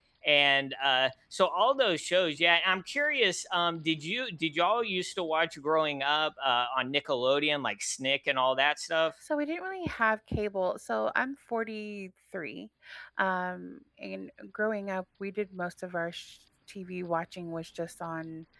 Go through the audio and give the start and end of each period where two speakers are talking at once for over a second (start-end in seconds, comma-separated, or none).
none